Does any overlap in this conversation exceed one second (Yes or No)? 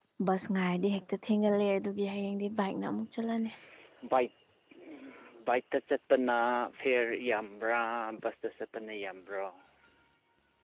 No